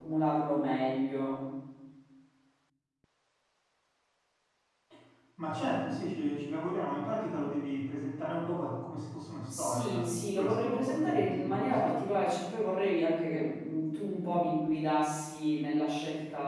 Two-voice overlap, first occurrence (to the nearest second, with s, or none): 9 s